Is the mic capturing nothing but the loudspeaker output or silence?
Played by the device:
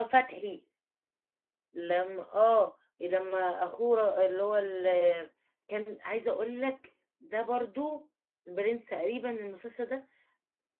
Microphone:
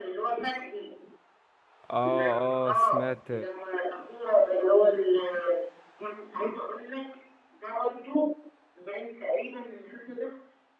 No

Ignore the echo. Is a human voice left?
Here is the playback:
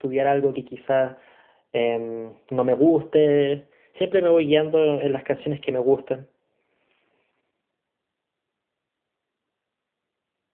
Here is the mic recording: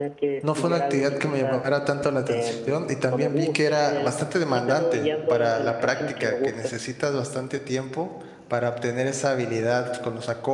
Yes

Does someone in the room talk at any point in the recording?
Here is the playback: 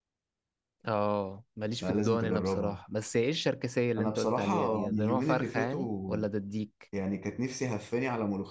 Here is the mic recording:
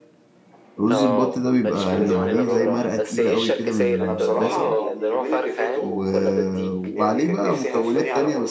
Yes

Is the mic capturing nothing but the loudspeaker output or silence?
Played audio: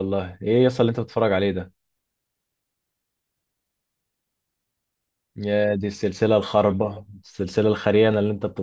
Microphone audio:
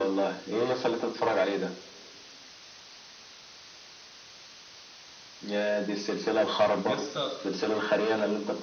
No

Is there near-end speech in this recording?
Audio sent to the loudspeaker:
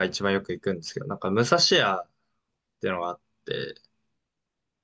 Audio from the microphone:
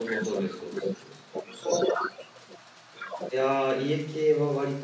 Yes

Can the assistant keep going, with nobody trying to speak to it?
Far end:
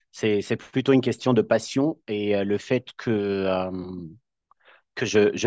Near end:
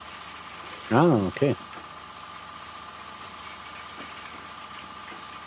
No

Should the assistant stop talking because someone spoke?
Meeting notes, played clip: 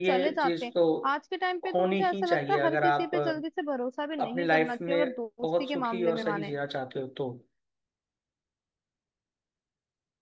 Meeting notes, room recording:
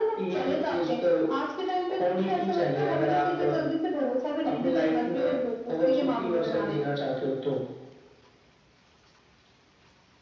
No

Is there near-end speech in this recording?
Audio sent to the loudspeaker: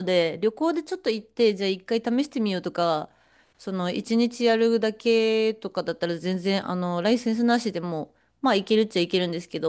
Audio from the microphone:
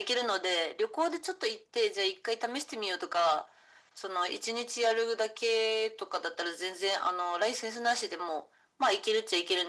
No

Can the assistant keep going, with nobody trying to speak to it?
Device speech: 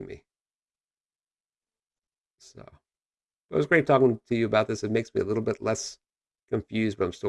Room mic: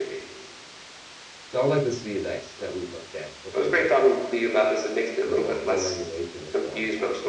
No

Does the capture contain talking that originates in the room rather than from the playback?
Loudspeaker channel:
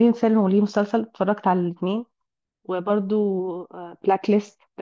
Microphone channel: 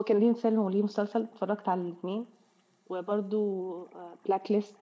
No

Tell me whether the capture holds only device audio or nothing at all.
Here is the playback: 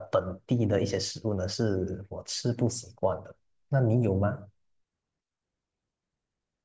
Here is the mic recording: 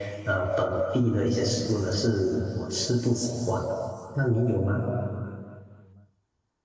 Yes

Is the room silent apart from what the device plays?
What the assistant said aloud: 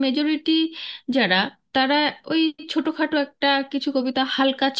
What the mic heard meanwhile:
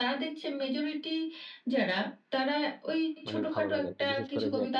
No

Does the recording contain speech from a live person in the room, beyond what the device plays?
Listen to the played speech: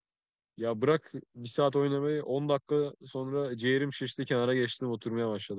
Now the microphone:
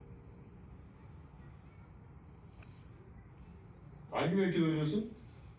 Yes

